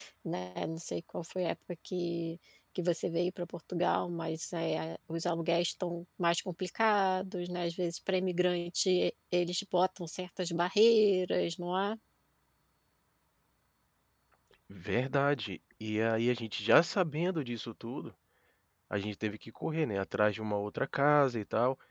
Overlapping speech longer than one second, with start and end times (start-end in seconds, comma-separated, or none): none